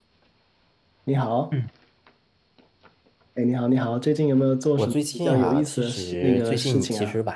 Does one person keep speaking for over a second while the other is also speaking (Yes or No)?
Yes